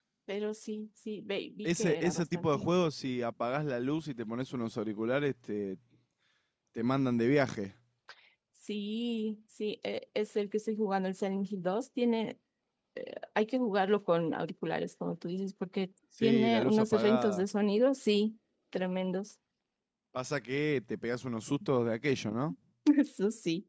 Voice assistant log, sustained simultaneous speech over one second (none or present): present